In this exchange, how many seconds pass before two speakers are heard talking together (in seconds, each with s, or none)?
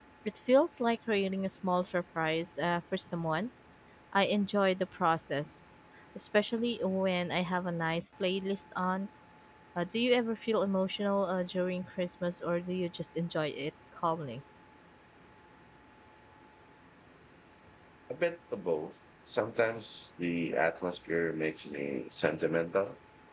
none